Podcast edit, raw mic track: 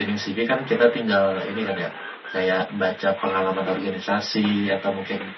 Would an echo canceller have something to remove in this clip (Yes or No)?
No